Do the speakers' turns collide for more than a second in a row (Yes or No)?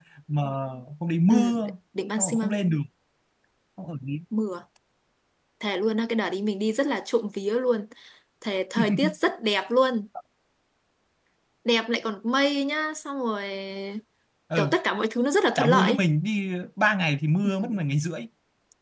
No